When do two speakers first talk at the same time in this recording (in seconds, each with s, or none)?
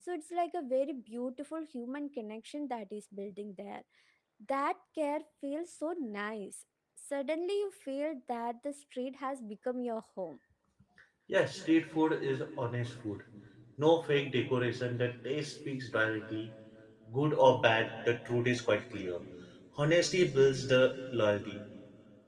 none